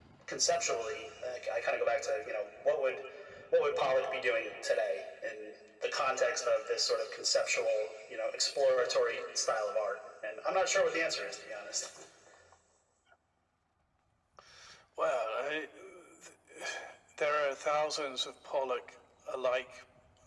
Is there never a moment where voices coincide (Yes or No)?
Yes